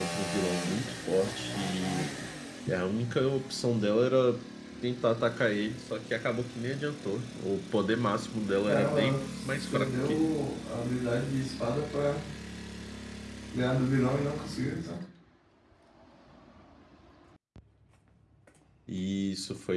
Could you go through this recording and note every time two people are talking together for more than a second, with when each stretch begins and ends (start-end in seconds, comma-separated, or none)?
8.6-10.3